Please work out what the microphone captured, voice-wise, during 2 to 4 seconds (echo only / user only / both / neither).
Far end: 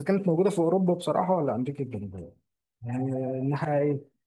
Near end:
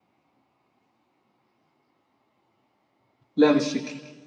user only